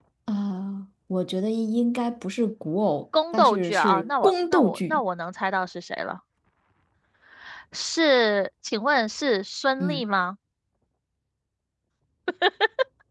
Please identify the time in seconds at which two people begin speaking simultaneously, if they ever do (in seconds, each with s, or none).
3.1 s